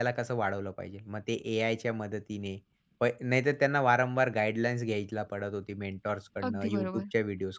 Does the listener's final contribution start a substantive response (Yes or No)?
No